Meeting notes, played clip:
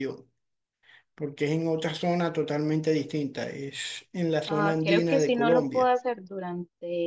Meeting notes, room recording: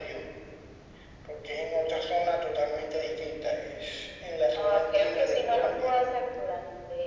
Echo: present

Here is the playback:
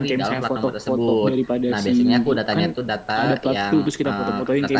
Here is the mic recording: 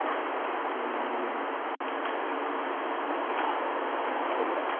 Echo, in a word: none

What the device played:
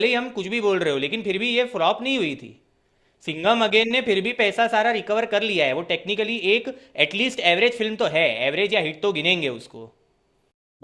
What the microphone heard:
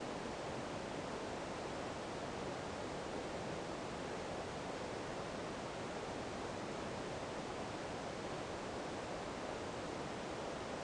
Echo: none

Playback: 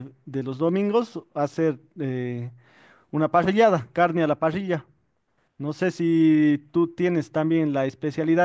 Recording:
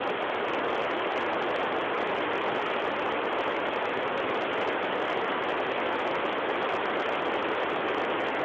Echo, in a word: none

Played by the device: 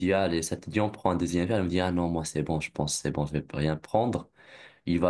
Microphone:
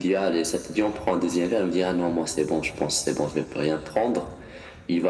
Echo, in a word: present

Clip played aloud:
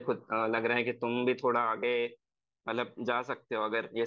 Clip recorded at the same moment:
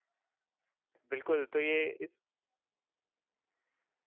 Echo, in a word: none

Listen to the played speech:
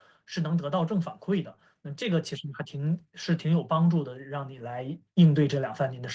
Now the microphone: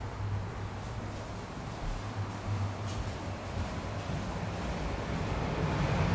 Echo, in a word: none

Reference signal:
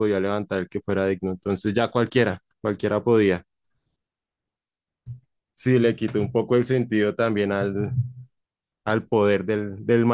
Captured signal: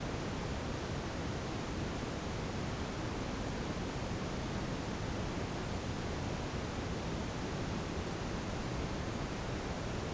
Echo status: none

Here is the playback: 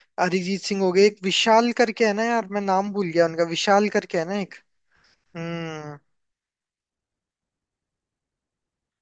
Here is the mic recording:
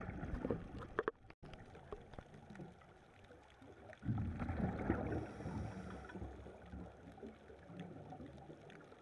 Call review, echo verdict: none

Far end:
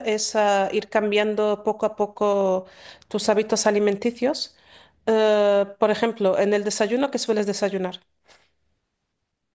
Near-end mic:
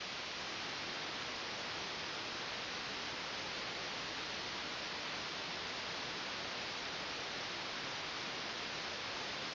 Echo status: none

